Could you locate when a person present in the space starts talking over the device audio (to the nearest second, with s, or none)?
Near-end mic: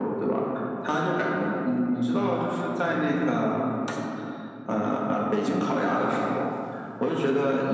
none